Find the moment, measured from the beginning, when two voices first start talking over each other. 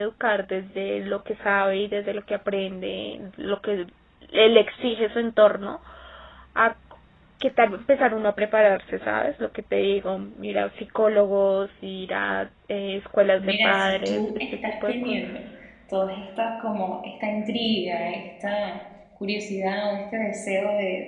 13 s

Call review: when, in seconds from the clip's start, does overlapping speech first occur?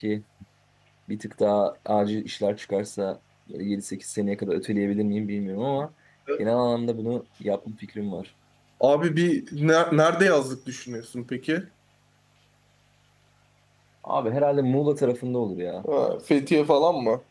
none

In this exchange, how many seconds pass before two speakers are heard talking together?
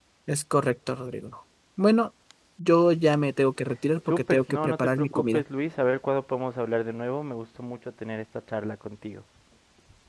4 s

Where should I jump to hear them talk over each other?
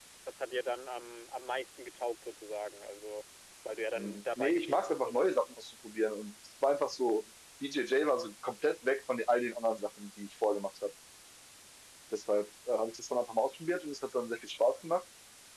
4 s

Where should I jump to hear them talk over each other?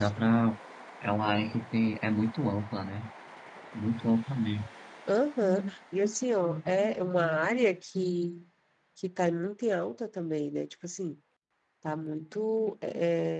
none

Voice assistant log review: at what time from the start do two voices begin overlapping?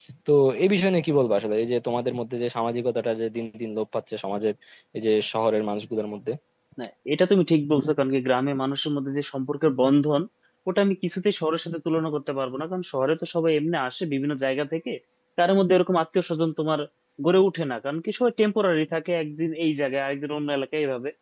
none

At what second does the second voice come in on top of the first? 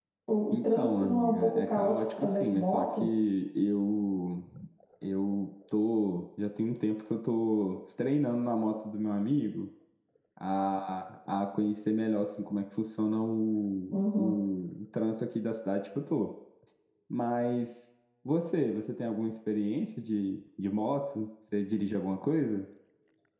1 s

